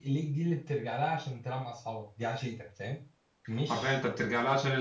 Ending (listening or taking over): taking over